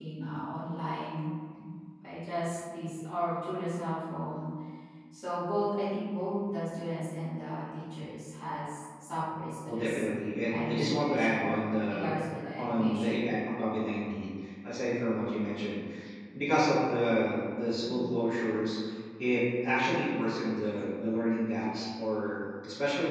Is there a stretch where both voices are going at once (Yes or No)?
Yes